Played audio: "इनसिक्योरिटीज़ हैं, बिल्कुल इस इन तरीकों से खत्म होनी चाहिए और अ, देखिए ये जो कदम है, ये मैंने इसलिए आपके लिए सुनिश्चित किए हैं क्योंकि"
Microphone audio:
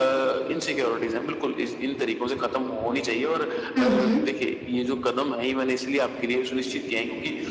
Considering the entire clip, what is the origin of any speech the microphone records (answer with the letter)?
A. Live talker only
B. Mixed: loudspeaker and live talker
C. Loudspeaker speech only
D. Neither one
B